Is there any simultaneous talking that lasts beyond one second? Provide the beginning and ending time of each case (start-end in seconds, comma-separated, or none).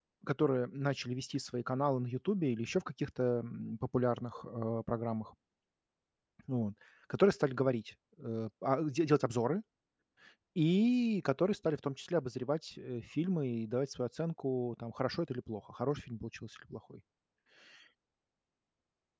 none